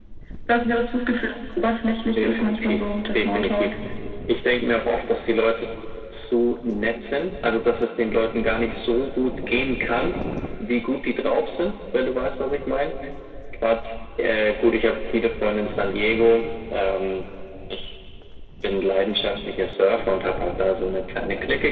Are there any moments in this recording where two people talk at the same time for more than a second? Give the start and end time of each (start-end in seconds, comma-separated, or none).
2.2-3.7